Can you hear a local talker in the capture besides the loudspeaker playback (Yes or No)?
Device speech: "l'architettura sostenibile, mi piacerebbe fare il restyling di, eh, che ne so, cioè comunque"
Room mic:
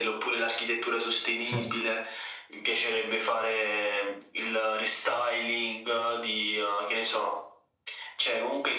Yes